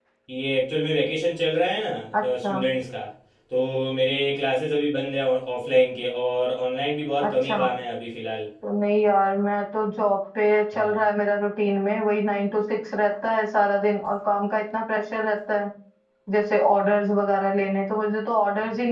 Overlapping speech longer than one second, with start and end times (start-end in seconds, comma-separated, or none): none